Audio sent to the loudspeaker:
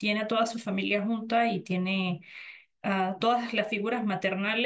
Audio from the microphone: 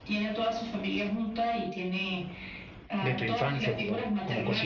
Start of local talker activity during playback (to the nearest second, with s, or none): 3 s